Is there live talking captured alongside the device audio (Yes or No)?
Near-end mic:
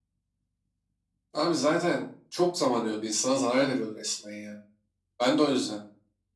No